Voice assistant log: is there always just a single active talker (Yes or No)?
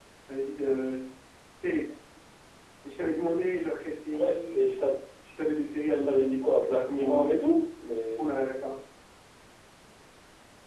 No